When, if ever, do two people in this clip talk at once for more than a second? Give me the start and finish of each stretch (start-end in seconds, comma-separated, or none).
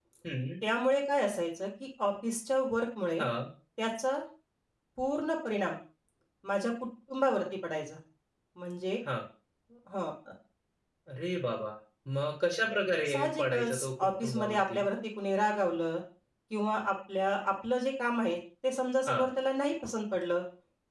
13.1-14.8